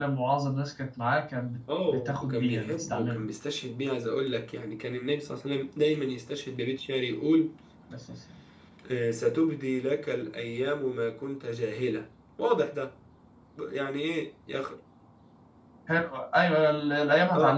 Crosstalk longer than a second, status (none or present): present